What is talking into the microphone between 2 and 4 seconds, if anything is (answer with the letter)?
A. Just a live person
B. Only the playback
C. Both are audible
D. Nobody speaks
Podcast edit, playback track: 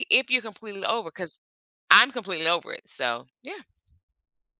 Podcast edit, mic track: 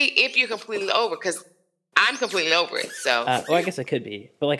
C